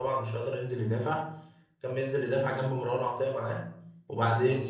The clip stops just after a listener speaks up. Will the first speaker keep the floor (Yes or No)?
Yes